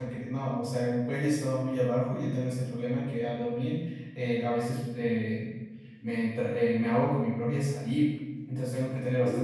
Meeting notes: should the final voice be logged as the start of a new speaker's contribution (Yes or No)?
No